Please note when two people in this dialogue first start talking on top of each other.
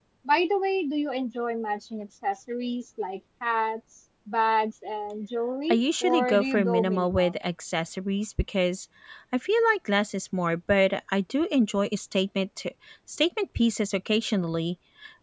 6 s

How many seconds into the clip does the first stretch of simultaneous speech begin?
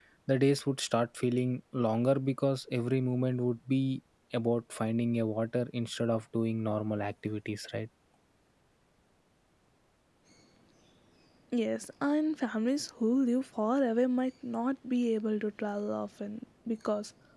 none

